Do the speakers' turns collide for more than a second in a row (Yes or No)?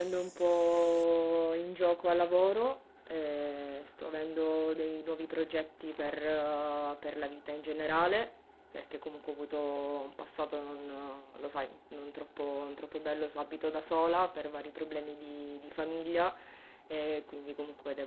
No